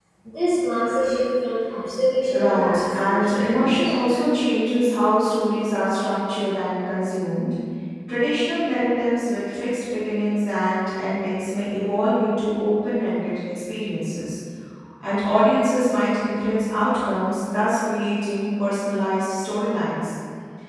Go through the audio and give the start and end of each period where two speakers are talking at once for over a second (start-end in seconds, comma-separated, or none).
2.3-3.9